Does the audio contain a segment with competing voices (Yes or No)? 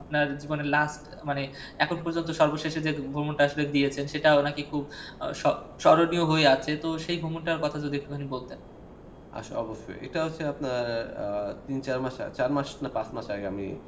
No